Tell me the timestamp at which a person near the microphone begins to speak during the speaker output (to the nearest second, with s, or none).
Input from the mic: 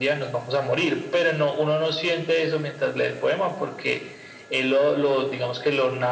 none